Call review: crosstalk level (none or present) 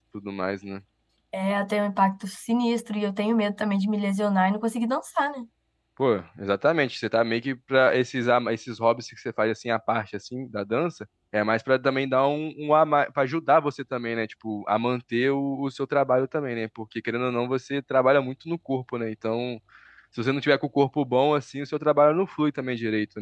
none